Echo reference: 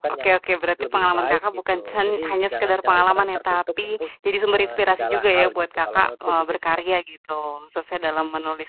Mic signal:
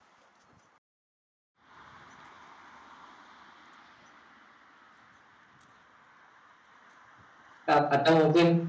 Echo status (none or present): none